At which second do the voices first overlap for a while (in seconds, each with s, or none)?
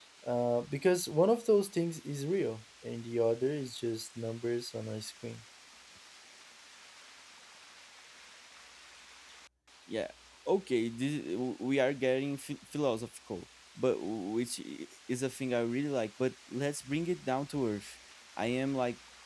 none